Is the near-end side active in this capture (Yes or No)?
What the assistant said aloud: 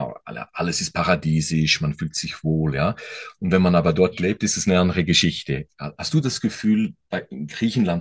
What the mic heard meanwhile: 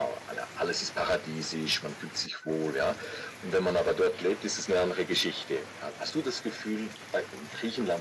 No